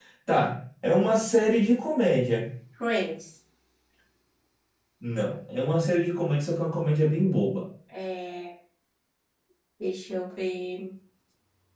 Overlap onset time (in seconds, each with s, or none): none